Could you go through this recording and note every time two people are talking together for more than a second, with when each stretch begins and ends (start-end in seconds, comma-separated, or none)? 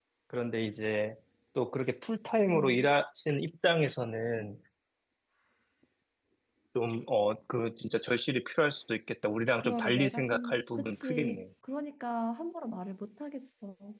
9.6-11.4